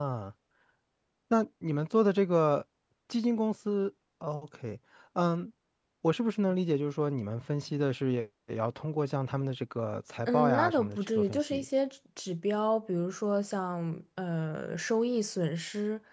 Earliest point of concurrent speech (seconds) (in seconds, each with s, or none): 10.3 s